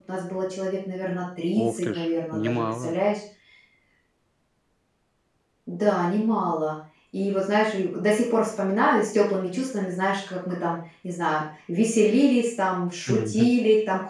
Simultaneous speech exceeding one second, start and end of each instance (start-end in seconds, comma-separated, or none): 1.7-2.9